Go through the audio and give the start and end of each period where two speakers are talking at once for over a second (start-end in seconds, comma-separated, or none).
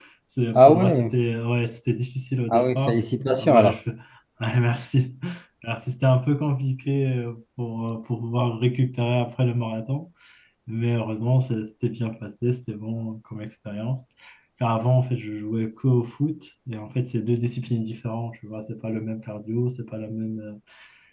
2.5-3.8